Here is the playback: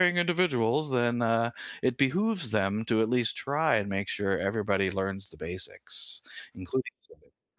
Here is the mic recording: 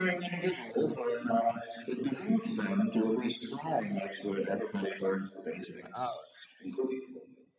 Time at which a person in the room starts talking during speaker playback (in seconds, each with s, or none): 5.7 s